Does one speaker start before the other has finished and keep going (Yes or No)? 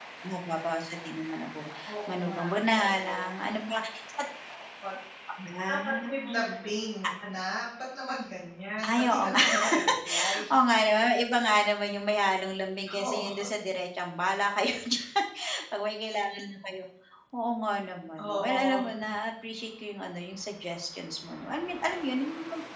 Yes